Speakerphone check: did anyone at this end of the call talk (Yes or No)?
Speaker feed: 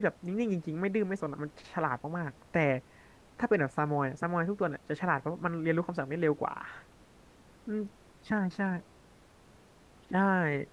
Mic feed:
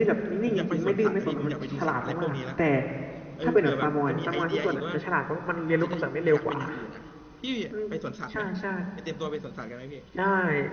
Yes